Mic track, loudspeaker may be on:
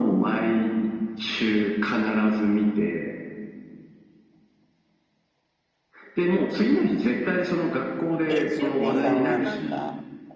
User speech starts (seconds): 8.3 s

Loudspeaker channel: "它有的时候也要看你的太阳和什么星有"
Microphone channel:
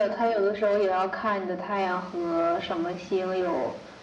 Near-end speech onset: none

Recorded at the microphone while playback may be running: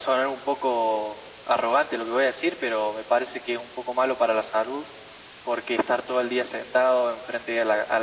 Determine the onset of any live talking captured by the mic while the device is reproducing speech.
none

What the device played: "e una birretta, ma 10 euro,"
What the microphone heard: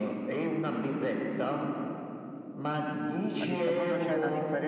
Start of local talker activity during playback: 3.3 s

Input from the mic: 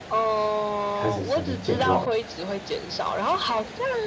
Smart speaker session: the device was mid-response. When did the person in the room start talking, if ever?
0.9 s

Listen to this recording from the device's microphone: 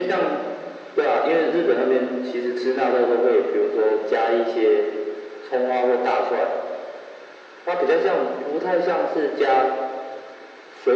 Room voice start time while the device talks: none

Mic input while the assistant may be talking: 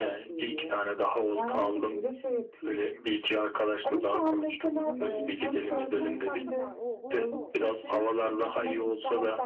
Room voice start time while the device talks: 4.7 s

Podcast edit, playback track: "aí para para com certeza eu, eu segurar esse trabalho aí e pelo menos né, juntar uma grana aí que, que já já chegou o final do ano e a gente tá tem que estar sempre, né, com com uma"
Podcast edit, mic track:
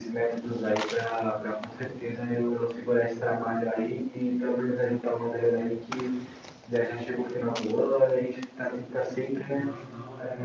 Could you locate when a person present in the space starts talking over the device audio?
9.5 s

